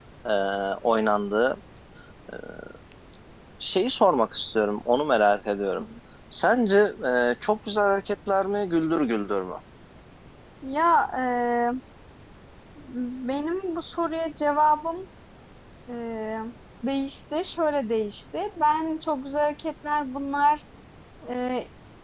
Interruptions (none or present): none